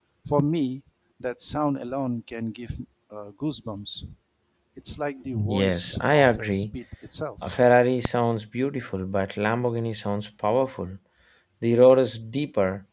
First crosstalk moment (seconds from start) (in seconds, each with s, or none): 5.5 s